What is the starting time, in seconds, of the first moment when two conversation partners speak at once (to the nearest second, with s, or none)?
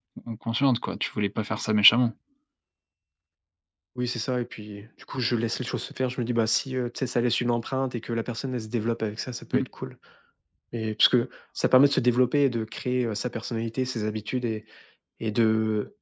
none